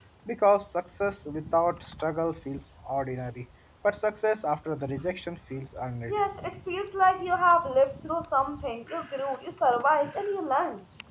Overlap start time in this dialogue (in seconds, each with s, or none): none